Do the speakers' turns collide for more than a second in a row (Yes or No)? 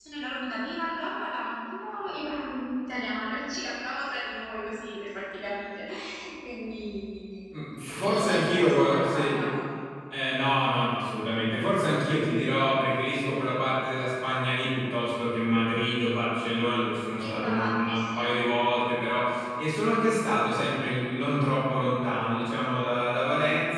Yes